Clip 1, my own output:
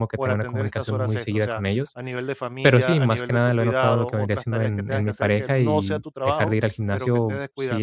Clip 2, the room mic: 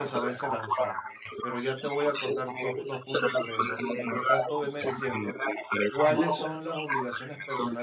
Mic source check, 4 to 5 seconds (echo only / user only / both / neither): both